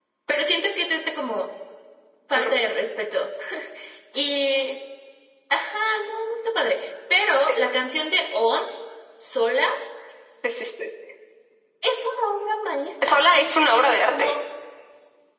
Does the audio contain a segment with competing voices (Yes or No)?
Yes